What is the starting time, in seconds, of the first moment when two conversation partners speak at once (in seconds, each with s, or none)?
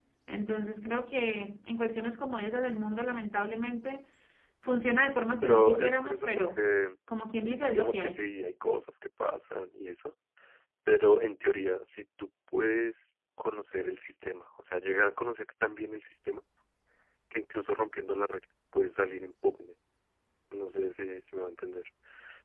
5.4 s